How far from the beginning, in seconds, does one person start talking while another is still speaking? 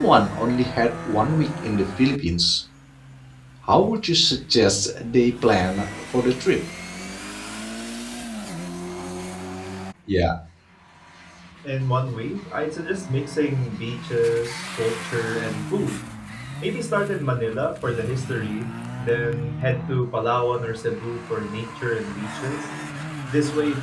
none

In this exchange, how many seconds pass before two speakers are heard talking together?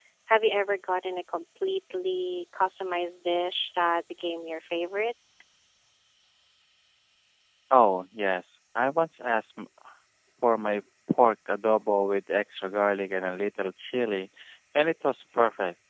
none

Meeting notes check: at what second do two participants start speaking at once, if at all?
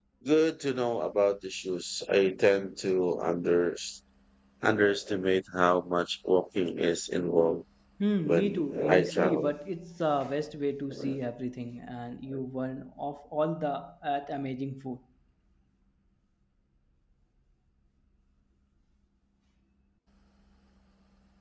8 s

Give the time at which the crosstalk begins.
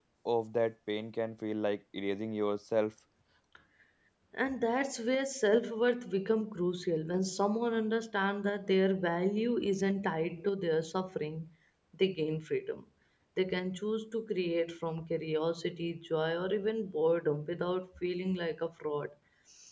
none

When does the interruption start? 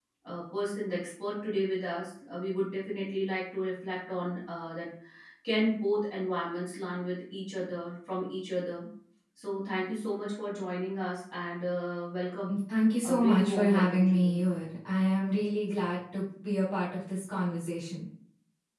13 s

